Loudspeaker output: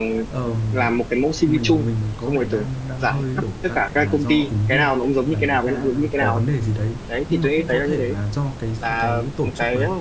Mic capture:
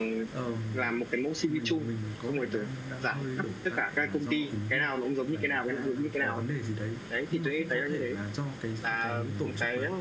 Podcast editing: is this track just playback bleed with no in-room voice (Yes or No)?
No